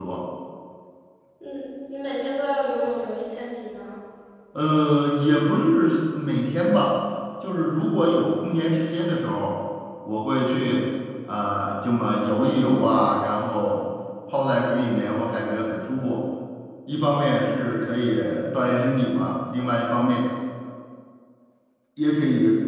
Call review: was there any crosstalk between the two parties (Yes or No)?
No